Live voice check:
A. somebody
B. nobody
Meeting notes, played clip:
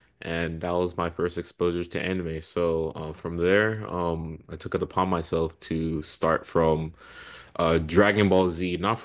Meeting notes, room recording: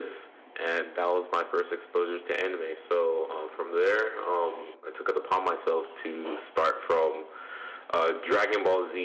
B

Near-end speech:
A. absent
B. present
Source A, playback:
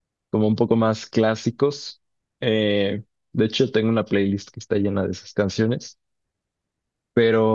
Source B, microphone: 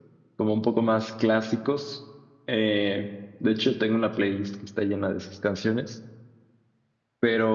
A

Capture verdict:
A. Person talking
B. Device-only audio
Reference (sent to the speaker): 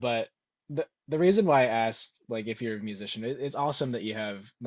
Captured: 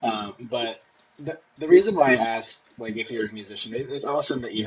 B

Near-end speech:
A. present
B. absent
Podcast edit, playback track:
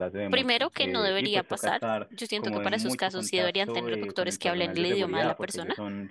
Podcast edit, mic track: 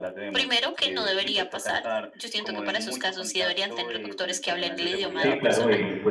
A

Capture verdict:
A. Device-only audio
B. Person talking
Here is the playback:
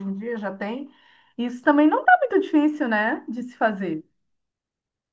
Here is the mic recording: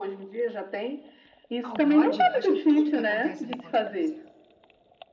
B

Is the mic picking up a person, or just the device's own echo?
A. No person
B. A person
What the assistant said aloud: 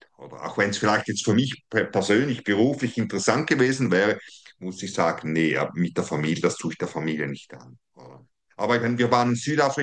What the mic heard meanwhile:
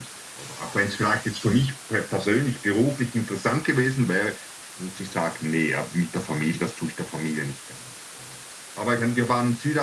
A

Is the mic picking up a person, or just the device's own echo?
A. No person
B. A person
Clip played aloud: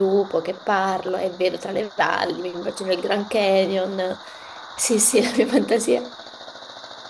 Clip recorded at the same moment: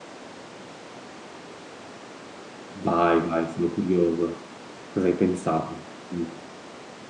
B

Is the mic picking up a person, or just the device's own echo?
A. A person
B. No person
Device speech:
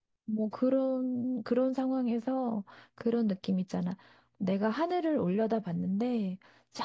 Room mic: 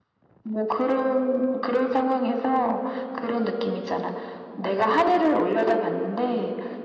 B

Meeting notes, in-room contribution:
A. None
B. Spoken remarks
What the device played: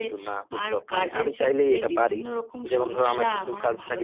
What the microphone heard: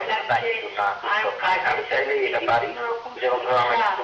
A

